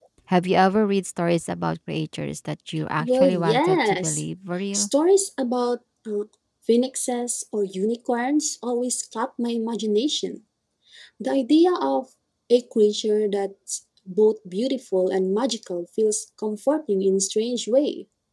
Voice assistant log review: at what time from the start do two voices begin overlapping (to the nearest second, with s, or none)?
3 s